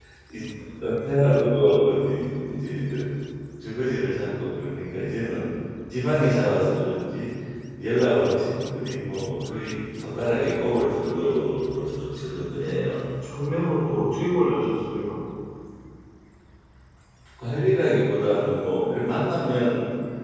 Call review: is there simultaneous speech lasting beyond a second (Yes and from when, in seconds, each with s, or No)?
No